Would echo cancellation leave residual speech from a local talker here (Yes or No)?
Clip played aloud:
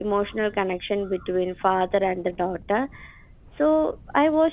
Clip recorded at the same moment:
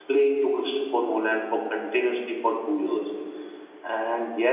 Yes